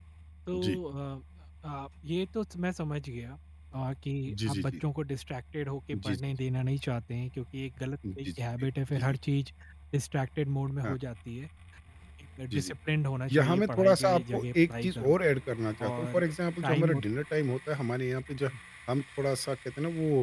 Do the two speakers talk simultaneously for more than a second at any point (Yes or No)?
Yes